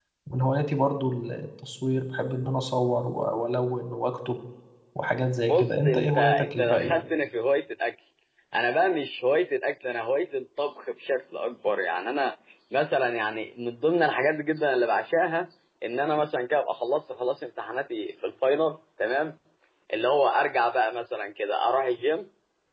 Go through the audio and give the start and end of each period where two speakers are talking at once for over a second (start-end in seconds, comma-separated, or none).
5.5-7.0